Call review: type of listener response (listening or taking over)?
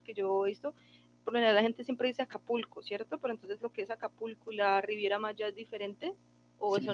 taking over